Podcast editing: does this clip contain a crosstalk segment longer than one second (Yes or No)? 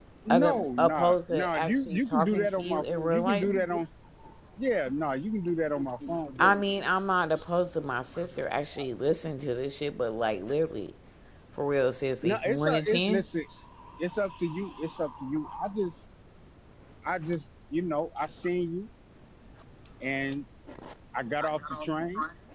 Yes